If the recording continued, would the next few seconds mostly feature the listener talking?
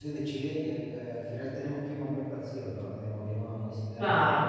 No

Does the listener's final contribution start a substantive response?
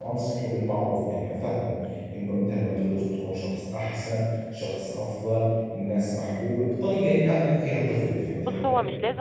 Yes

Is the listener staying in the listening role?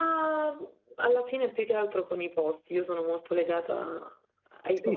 No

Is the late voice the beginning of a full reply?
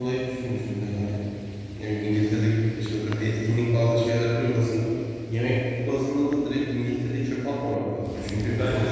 No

